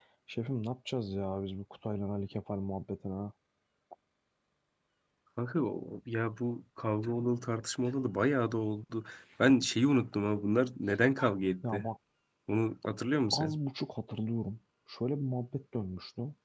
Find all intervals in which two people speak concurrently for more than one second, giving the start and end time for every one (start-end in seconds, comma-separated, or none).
none